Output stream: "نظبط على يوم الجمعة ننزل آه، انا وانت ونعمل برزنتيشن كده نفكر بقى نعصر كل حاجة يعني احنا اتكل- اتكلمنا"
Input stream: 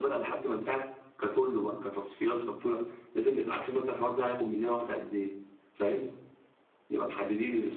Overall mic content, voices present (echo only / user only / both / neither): user only